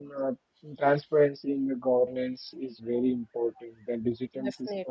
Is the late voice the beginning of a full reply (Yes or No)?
No